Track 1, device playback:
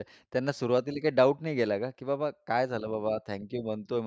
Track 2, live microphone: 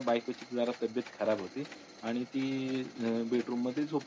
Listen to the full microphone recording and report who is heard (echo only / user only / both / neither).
user only